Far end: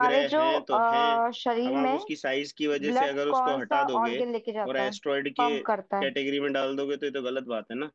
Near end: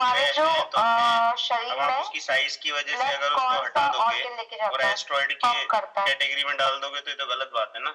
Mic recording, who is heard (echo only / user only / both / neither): echo only